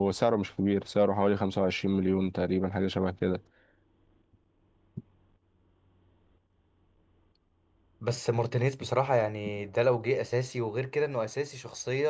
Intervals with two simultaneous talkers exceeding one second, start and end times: none

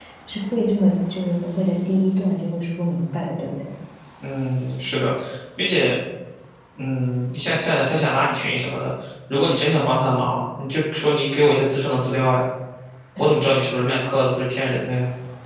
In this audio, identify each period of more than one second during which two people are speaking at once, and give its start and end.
none

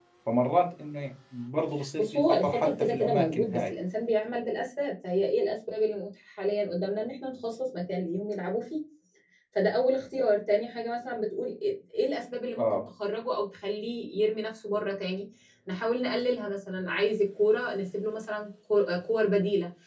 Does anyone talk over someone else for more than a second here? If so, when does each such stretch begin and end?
2.0-3.8

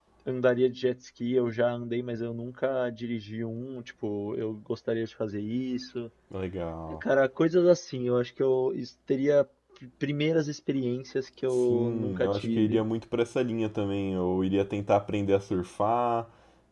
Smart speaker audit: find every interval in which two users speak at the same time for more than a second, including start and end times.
11.5-12.8

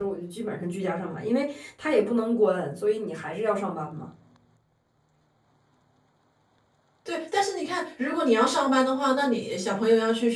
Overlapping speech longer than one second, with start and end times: none

